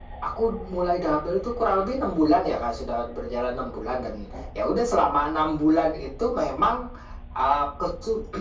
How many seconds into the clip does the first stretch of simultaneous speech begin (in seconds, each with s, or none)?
none